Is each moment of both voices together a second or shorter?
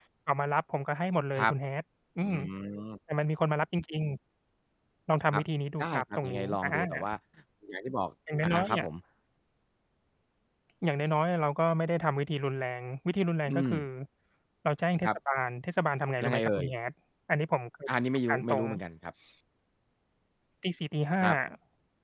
No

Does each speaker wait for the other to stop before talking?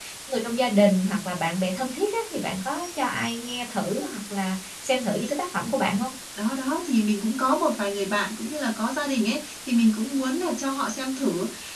Yes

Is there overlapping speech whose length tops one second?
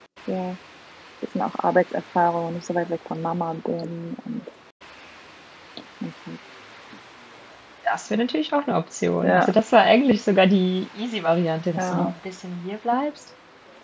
No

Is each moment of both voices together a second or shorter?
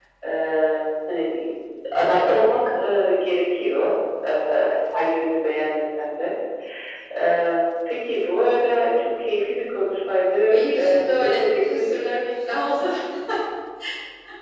No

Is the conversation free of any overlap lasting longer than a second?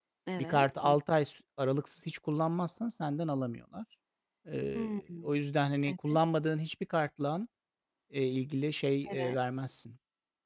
Yes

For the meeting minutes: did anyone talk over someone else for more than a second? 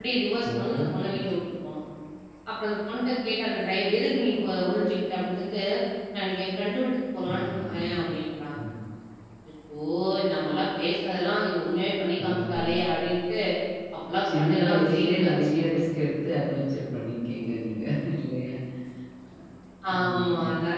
Yes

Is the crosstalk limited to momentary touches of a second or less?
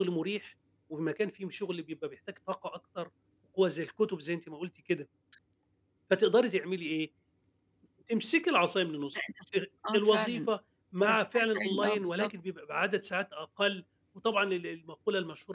No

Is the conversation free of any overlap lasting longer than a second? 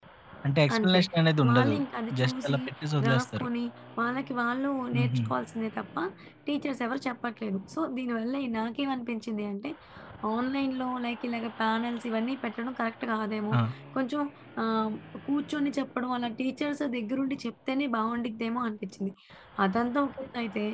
Yes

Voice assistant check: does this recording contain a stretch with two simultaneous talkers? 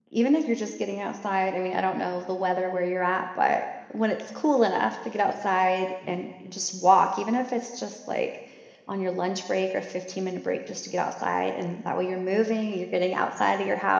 No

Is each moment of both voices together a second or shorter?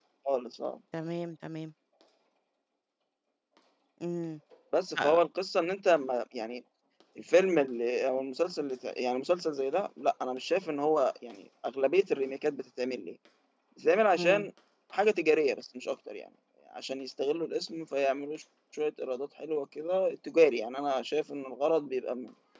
Yes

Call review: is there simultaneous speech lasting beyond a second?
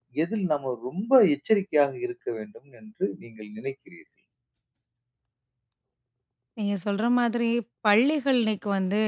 No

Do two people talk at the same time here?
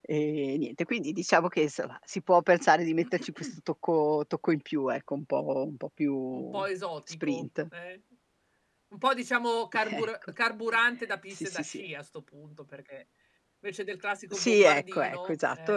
Yes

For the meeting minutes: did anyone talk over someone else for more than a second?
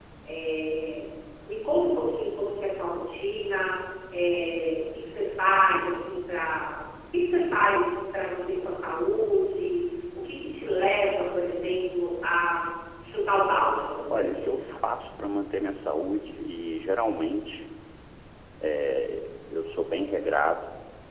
No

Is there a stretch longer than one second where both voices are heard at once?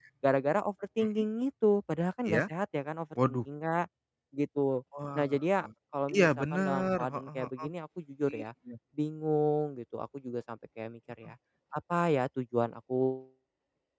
Yes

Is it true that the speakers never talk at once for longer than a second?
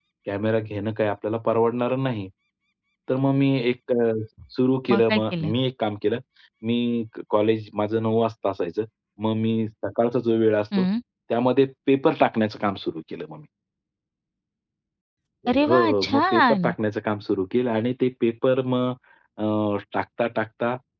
No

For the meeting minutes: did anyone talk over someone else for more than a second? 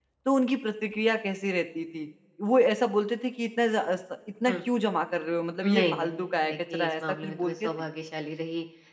Yes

